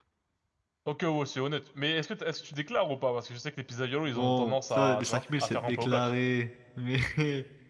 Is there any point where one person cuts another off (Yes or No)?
Yes